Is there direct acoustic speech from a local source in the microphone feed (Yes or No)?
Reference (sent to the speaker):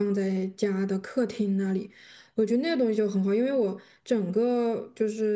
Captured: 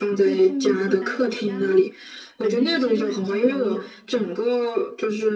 Yes